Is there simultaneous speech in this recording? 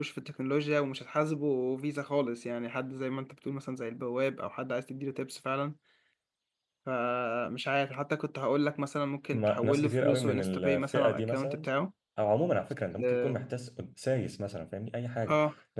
Yes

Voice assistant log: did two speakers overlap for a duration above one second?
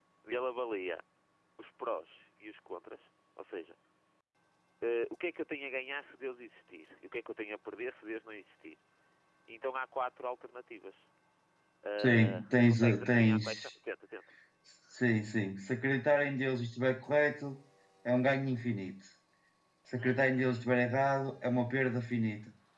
Yes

